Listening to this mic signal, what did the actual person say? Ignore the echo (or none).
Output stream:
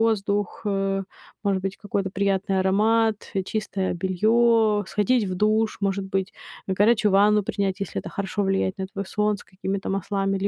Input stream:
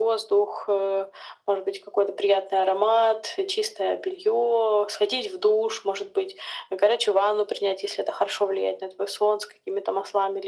none